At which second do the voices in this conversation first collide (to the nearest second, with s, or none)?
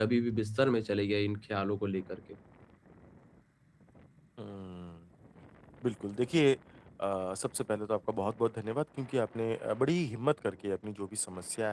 none